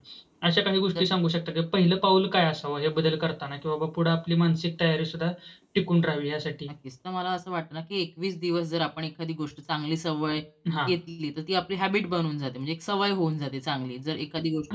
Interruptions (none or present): none